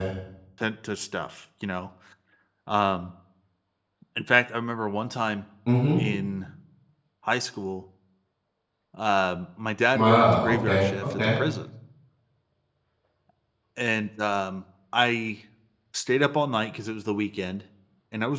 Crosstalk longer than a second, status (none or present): present